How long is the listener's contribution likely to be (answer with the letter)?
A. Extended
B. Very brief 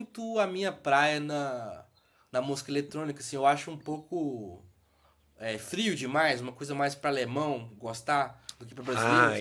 A